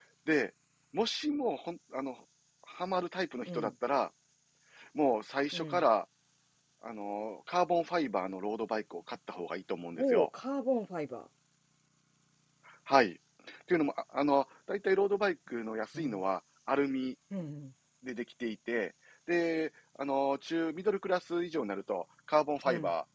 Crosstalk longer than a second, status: none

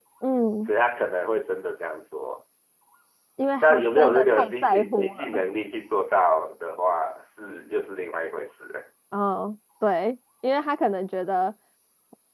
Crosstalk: present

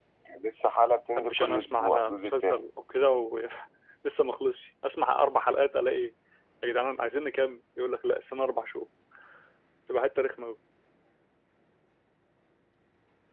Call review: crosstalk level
present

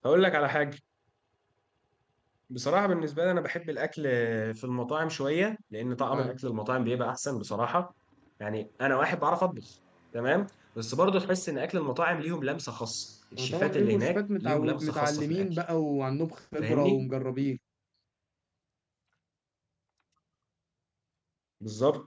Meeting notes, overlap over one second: present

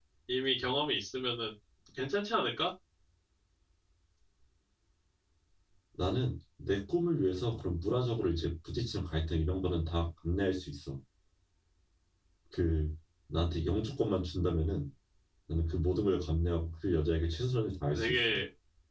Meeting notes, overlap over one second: none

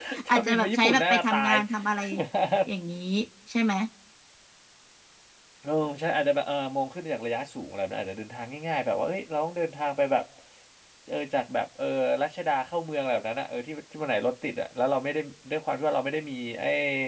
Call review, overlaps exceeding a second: present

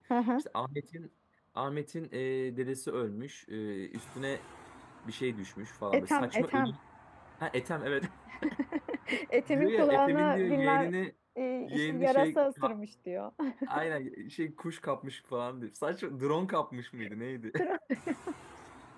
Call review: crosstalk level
present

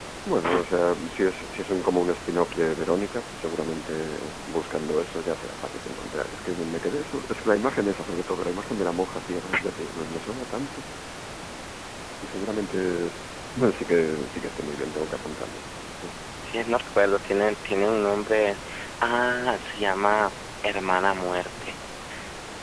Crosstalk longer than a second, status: none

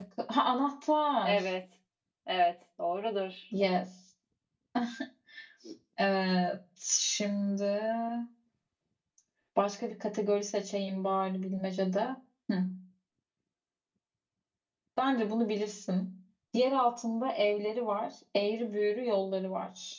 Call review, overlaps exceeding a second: none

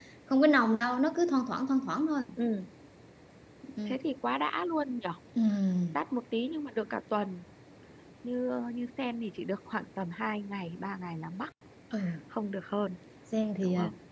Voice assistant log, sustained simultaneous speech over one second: none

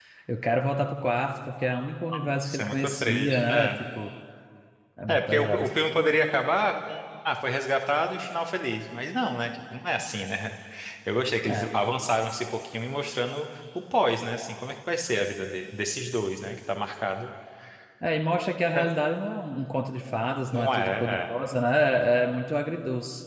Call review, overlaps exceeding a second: present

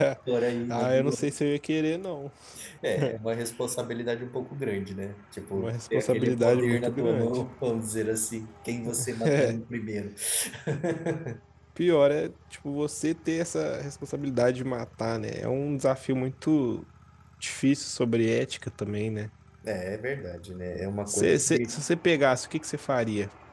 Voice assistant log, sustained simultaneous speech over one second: present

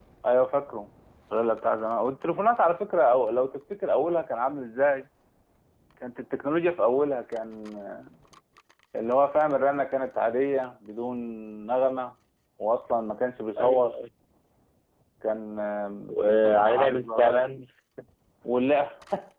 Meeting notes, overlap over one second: present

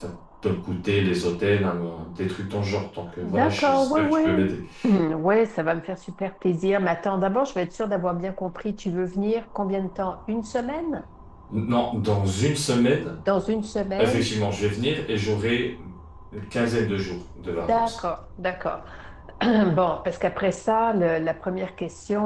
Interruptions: present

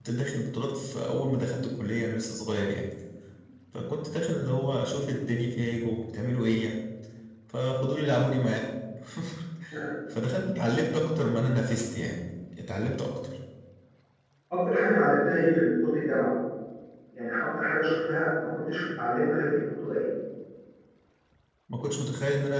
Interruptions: none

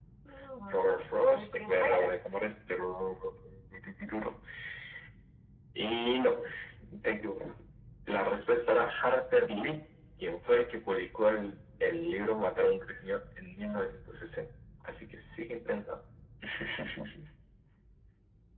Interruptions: present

